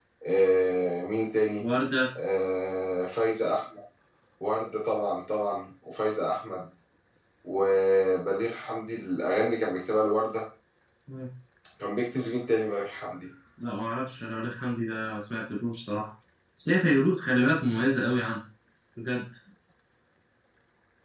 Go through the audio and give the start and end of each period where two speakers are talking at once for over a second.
none

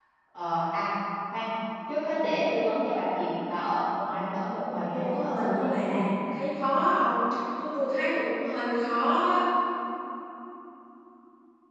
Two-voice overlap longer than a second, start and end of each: 4.6-6.1

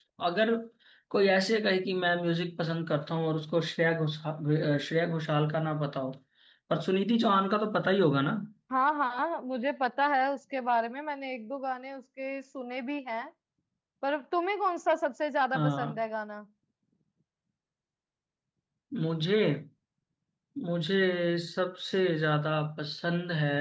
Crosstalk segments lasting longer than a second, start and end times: none

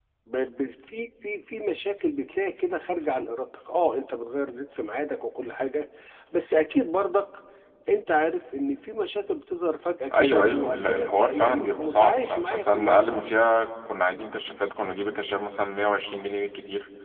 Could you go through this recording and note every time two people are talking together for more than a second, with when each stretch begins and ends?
10.1-13.2

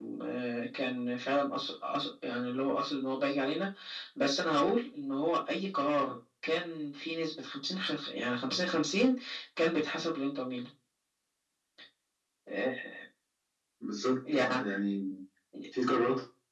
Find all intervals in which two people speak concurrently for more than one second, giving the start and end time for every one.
none

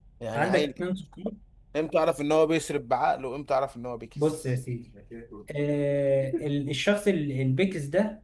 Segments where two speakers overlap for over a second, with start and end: none

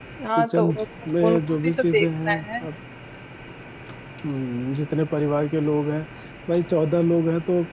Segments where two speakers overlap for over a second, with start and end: 1.2-2.6

